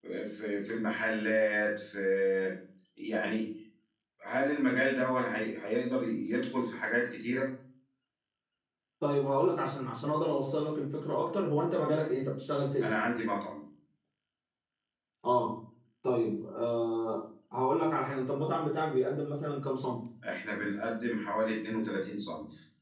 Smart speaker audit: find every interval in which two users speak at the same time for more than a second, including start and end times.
none

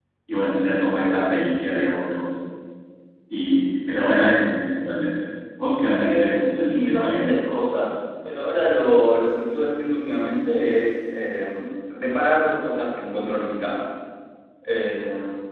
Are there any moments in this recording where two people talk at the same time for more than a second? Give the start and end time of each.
6.0-7.3

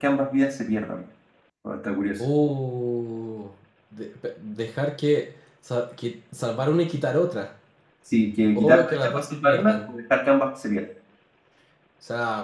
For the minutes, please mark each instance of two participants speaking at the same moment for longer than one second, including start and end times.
8.6-9.9

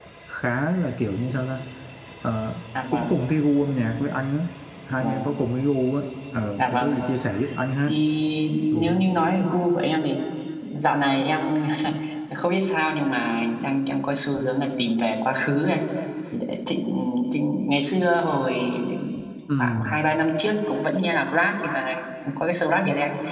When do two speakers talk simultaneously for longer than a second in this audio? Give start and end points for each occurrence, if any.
none

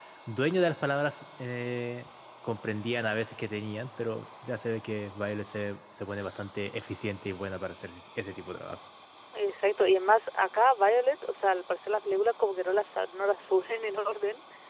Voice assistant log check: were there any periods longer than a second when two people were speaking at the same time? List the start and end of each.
none

